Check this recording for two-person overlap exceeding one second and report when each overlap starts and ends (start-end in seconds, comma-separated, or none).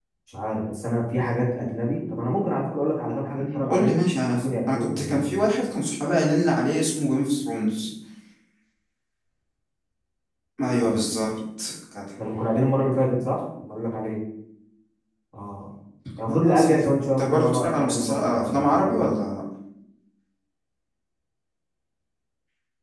3.4-5.4, 16.3-19.3